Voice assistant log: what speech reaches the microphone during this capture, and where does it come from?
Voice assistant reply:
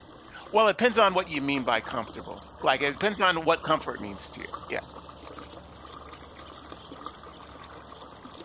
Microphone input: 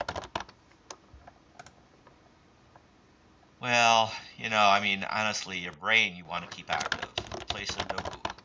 user only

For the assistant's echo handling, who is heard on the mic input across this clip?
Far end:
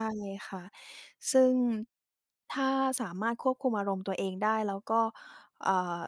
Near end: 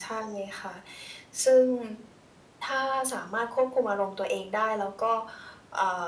echo only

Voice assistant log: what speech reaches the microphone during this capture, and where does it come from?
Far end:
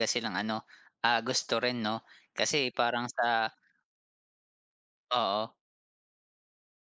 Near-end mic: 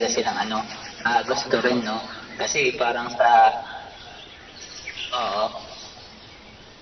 echo only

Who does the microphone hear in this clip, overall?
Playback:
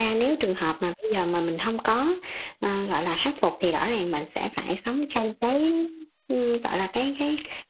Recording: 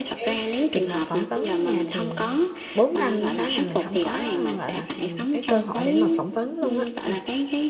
both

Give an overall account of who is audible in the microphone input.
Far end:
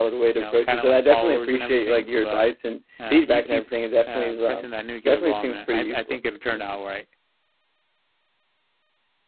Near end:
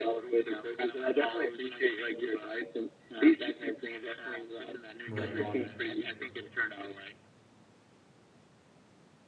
both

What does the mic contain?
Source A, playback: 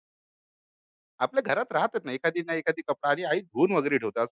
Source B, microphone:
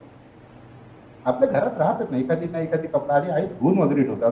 echo only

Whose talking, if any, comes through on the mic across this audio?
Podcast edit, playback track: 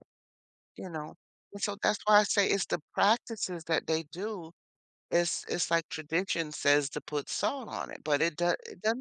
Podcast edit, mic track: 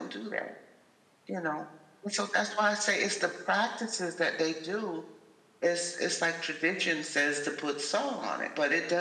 echo only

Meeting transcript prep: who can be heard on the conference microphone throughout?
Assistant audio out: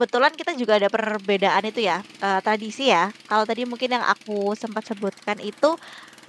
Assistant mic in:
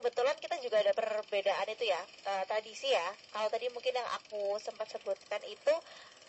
echo only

